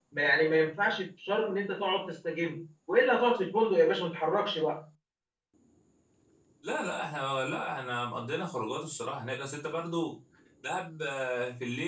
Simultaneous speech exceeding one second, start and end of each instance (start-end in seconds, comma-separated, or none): none